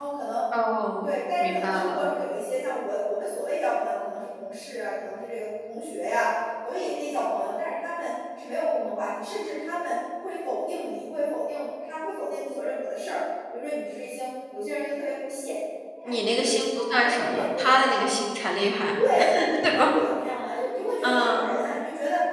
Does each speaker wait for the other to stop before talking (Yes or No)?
No